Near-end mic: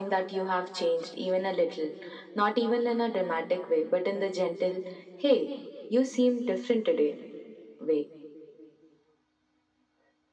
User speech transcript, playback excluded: none

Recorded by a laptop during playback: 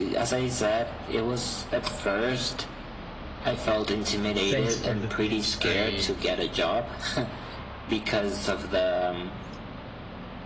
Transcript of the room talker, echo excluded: thanks for the tips i

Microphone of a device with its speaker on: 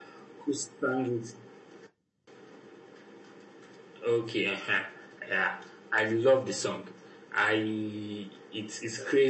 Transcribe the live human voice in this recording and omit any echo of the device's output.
none

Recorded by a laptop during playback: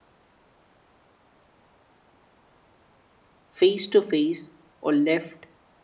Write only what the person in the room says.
face to face or left

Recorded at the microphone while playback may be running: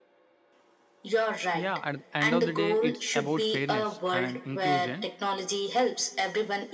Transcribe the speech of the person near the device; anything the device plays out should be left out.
Yeah, at the end of the day, it's about fairness and inclusion

